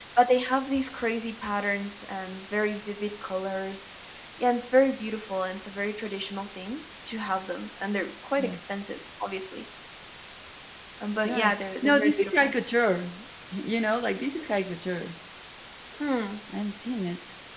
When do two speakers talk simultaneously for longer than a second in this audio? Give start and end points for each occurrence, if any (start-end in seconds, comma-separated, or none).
11.2-12.5